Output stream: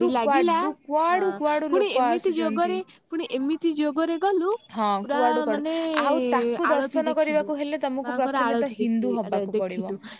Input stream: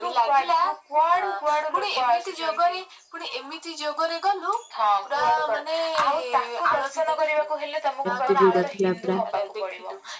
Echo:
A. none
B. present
B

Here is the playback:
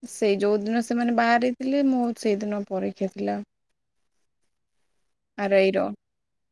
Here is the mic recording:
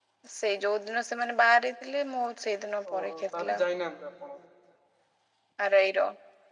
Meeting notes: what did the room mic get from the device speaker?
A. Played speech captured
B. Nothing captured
A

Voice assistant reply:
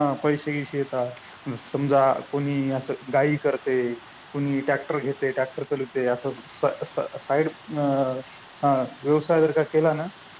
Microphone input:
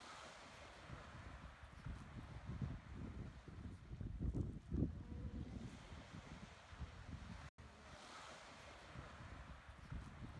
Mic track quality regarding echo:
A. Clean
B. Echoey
A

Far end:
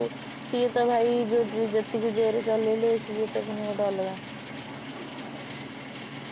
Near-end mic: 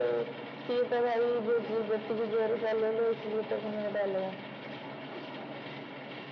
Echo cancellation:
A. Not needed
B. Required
B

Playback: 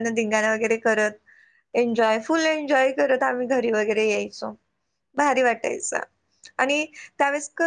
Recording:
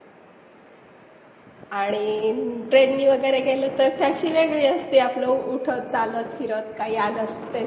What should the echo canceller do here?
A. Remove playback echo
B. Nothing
B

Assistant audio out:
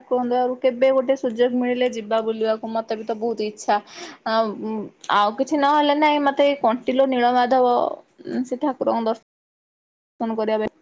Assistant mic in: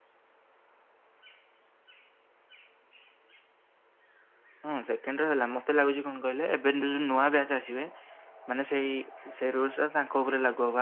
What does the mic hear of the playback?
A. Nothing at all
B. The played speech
A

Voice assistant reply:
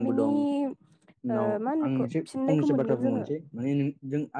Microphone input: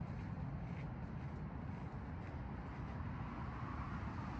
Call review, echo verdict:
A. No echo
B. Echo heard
A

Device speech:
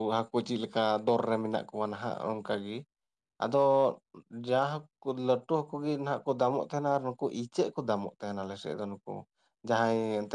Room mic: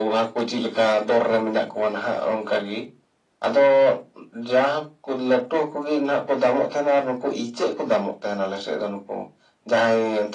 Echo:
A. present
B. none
A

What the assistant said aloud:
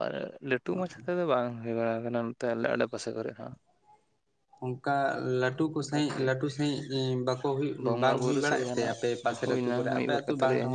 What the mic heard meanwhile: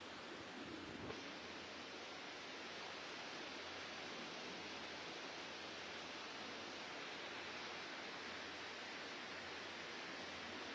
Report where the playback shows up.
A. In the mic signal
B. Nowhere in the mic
B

